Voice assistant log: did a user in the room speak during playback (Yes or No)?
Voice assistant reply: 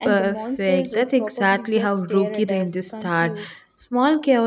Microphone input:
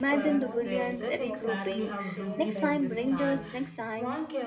Yes